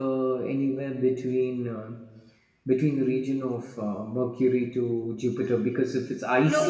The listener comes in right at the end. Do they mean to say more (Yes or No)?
Yes